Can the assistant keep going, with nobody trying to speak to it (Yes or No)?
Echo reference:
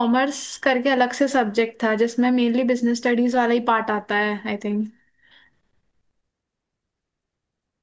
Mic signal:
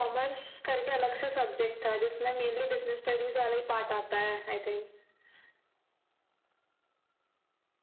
Yes